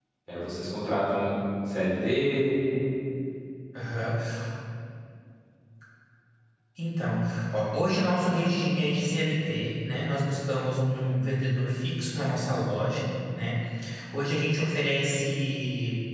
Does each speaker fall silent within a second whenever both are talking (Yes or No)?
Yes